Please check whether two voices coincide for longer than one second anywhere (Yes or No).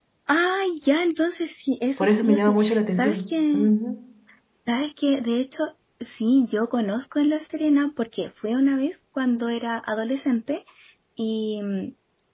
Yes